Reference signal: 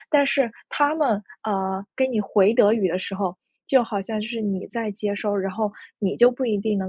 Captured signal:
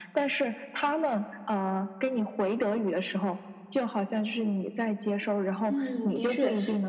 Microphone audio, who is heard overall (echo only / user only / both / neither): both